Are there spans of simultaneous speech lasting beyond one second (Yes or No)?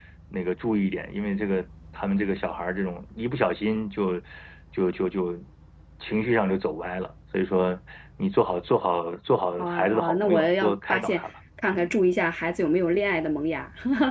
Yes